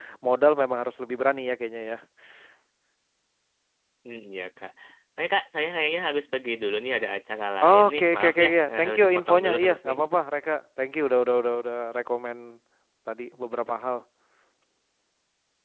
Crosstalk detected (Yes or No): Yes